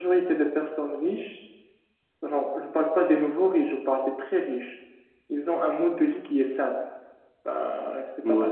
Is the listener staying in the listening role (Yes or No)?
Yes